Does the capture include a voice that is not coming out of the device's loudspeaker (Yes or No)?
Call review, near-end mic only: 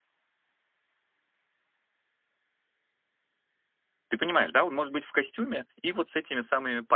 Yes